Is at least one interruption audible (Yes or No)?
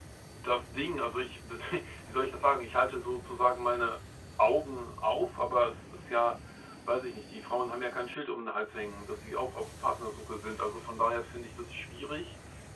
No